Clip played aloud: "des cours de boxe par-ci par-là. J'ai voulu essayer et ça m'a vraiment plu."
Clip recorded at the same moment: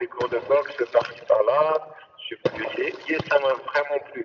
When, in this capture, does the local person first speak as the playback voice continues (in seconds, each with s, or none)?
none